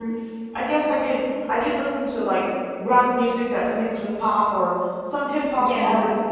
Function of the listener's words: listening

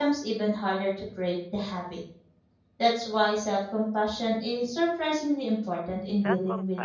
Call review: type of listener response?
taking over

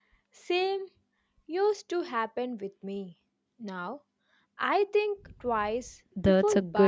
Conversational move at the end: taking over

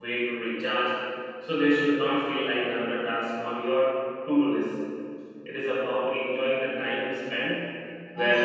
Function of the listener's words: listening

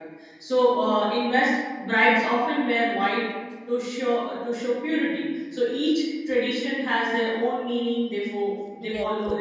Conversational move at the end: listening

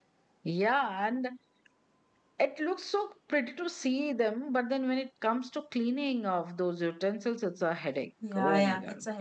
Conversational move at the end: taking over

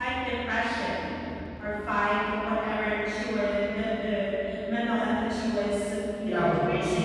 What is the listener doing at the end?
taking over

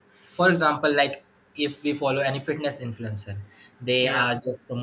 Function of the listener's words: listening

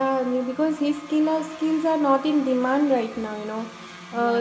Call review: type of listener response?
listening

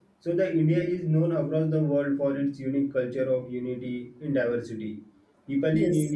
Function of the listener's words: listening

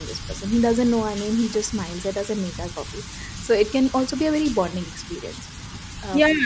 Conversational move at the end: taking over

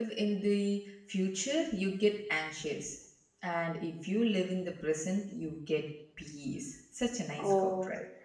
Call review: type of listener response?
taking over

